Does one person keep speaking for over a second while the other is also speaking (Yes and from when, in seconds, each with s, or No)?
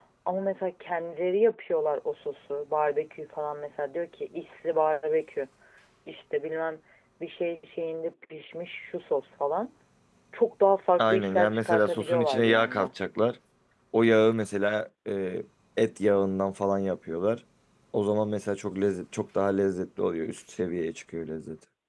Yes, from 11.0 s